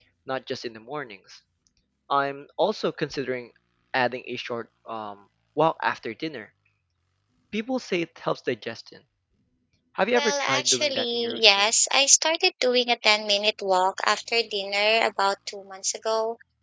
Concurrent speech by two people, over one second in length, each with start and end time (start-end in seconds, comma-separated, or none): 10.1-11.6